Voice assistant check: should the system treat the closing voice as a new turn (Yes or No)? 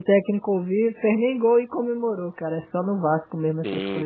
Yes